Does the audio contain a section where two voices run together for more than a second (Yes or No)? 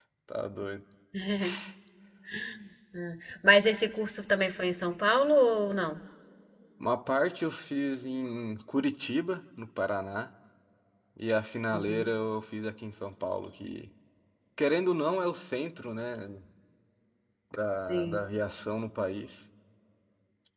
No